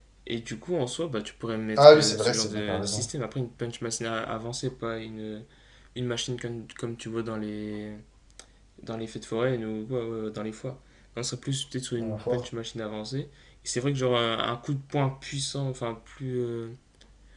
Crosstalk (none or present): present